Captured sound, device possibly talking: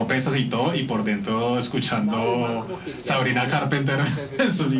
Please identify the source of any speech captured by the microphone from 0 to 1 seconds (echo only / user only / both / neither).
echo only